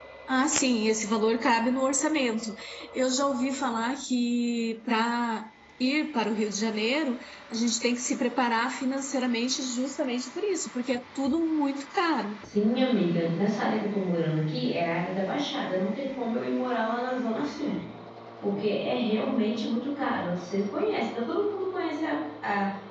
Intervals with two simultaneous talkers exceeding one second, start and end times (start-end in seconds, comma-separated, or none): none